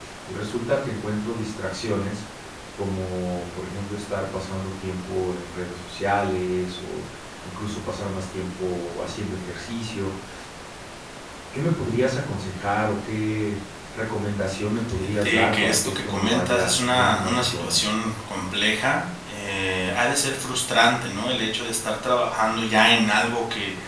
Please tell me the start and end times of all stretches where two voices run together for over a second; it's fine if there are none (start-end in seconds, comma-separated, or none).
14.9-17.8